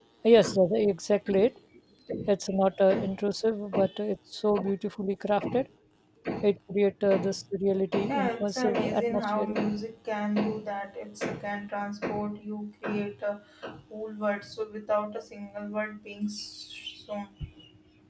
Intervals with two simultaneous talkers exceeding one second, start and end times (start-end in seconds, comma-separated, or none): 7.9-9.6